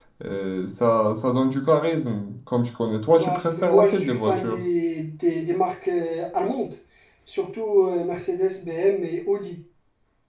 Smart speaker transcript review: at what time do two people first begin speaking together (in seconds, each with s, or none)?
3.1 s